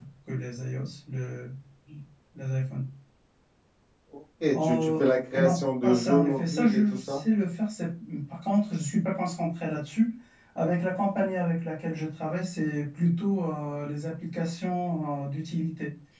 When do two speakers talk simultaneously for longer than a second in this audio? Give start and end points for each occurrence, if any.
5.4-7.2

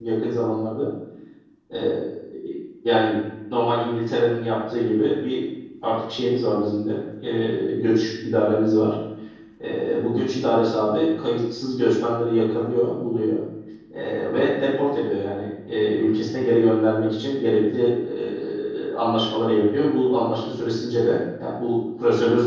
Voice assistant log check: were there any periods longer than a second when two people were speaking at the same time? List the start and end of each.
none

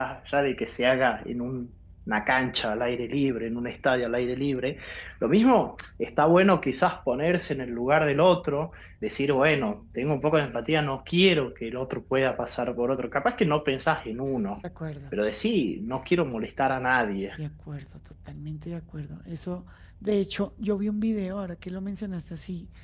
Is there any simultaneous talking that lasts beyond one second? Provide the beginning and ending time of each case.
none

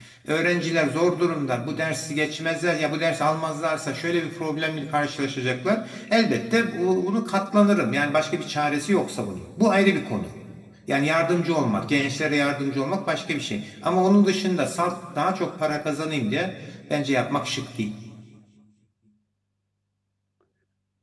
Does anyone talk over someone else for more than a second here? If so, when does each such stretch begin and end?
none

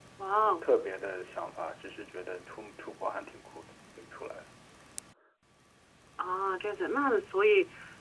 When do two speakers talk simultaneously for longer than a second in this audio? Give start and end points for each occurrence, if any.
none

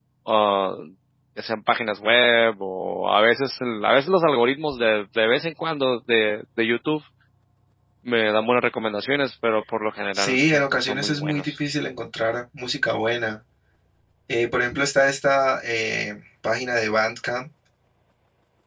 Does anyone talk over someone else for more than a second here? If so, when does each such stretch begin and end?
10.1-11.5

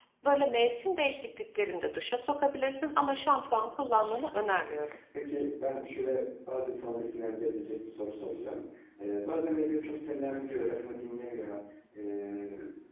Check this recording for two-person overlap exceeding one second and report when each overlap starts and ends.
3.5-5.0

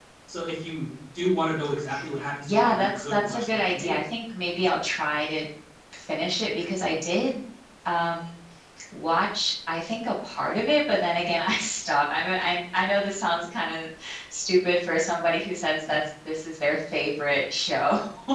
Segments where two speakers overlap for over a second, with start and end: 2.5-4.0

